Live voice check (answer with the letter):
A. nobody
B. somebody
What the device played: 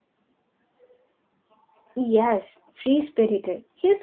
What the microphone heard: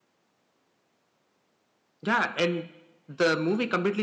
B